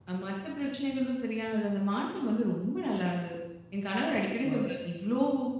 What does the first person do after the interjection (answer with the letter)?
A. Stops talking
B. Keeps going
B